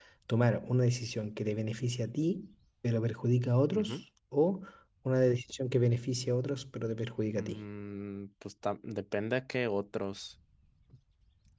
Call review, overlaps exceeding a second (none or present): none